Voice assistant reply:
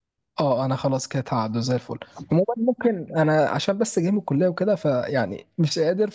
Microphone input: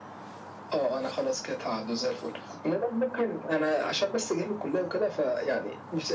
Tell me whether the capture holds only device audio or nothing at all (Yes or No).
Yes